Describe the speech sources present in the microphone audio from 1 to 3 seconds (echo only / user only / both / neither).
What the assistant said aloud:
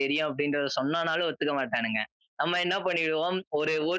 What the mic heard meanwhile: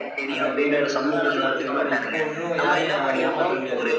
both